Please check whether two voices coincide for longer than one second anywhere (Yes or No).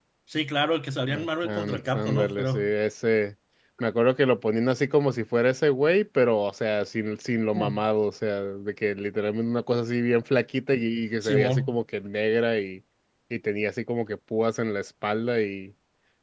Yes